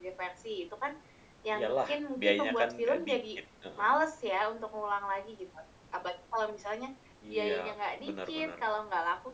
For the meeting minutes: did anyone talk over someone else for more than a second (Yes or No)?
Yes